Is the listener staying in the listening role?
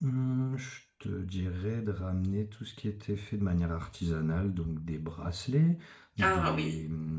Yes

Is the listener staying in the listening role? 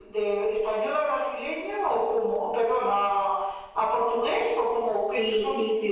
No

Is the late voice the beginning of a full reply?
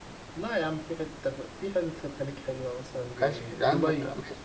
Yes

